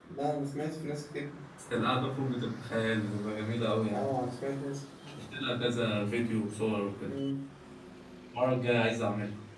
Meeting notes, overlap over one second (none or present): none